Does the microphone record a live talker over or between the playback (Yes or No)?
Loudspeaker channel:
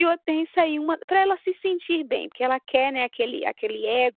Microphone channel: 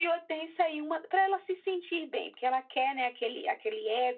No